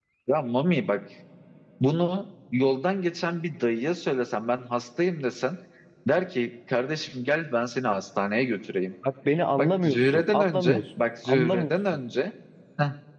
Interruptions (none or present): present